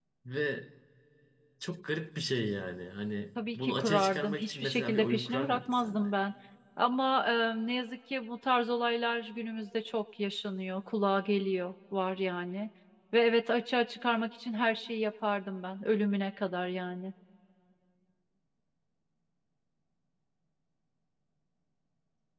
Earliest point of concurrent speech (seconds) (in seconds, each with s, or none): 3.4 s